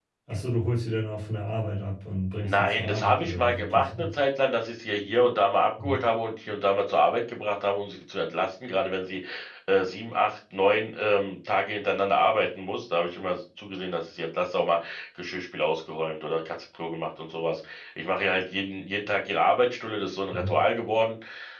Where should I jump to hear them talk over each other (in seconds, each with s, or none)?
2.4 s